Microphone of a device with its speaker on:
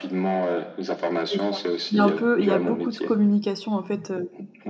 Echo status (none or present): present